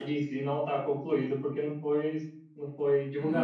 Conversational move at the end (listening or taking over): taking over